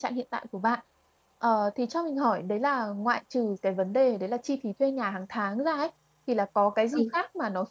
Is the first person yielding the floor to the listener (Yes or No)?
No